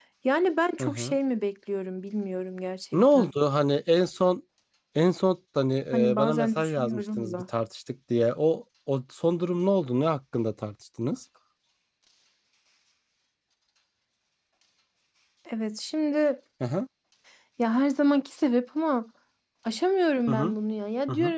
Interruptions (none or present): present